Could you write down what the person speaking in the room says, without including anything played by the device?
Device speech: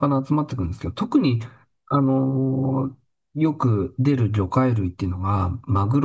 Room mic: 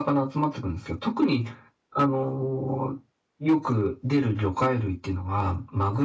none

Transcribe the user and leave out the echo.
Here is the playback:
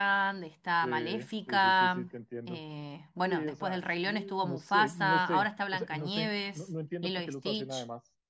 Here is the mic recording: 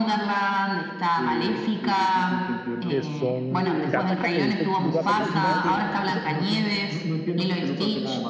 que son Gataca. ¿Te viste tú Gataca alguna vez?

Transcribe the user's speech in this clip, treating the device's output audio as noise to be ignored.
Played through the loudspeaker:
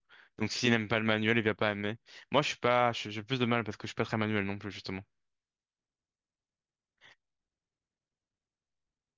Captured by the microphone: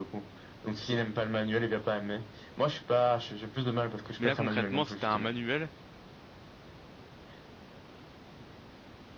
Mais là, concrètement, c'était un manuel

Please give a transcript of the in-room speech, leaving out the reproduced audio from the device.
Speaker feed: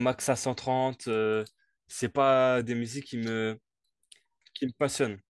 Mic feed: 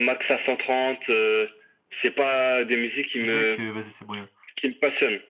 Les mecs, euh, vas-y, c'est moyen.

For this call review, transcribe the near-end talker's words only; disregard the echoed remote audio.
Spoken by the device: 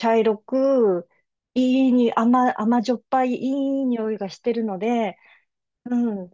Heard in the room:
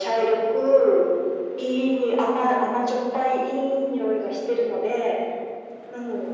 none

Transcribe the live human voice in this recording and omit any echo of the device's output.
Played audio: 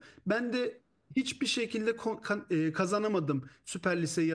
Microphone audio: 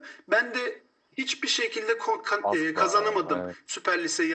Asla ya. evet.

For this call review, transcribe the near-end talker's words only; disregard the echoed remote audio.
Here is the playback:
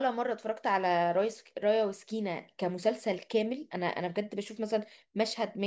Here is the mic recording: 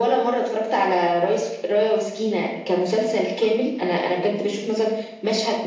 none

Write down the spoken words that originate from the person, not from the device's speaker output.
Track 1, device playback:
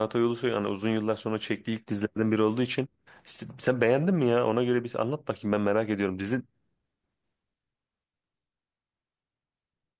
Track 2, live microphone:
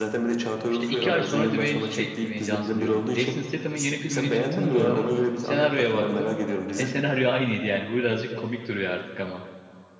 İşte iki ay sonra Dwayne, şey, Dwayne Johnson diyorum. Jason Statham'ın yeni filminin çıktığını gördüm. Senaryoya baktım. E senaryo aynıydı yani. Bu birazcık komik duruyor artık ama.

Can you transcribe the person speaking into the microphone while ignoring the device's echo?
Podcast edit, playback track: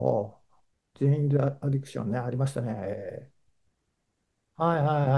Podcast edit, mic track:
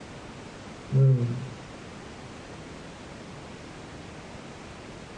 うん

